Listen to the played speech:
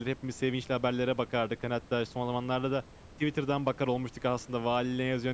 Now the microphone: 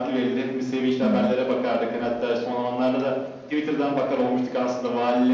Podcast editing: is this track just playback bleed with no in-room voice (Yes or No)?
No